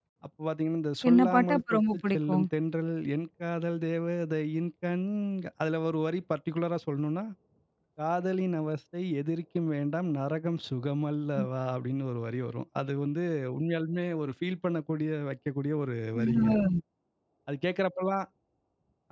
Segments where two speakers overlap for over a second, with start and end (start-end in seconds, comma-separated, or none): 1.1-2.4